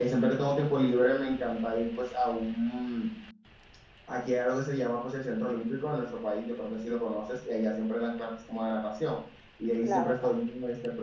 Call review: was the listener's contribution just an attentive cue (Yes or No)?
Yes